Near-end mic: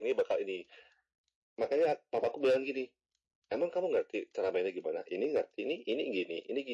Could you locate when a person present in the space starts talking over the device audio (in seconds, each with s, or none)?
none